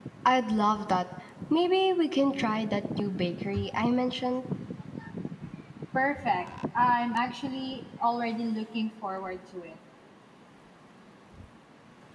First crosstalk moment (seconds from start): none

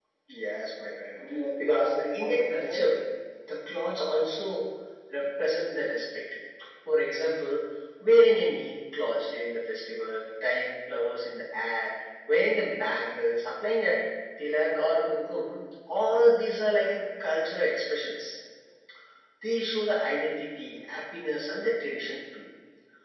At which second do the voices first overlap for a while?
1.6 s

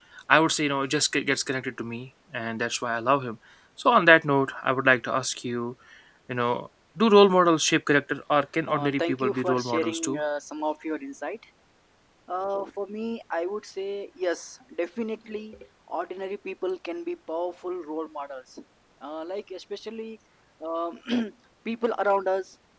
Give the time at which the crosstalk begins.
8.7 s

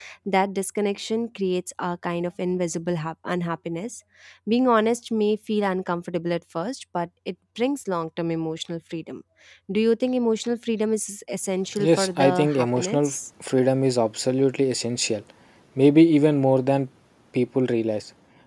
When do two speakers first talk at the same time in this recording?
11.8 s

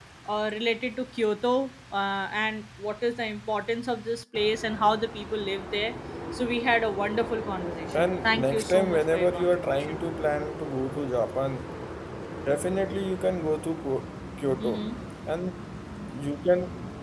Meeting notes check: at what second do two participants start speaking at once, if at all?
7.9 s

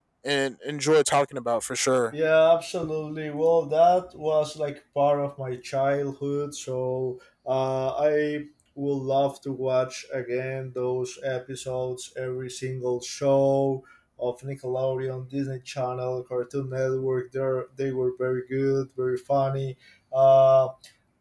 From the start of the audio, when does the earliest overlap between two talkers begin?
none

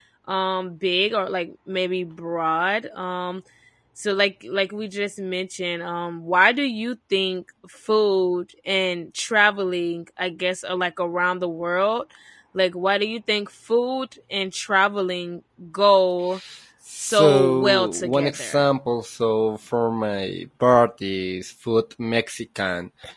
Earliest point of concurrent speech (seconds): 17.0 s

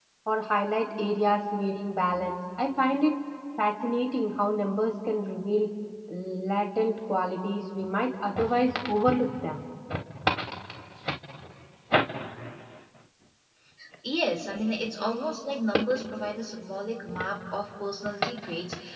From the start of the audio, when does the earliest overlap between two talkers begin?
none

